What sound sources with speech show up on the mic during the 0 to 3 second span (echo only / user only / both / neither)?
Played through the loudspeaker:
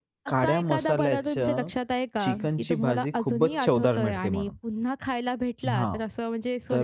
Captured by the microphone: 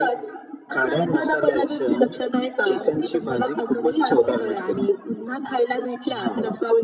echo only